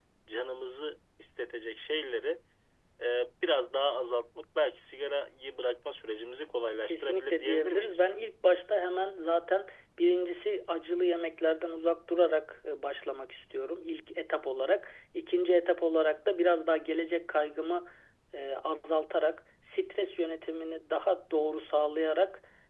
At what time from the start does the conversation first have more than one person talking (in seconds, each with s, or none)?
6.9 s